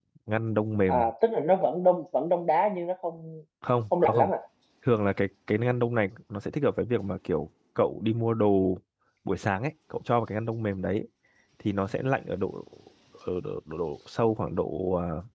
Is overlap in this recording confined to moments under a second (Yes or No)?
Yes